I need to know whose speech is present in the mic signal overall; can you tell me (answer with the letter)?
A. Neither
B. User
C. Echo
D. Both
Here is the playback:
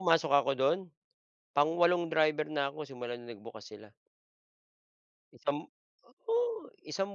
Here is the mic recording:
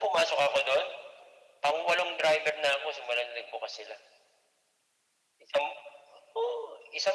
C